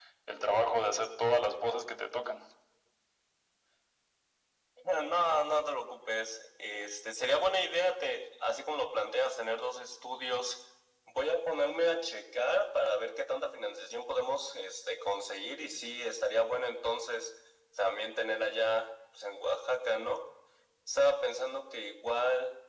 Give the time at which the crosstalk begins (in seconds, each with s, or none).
none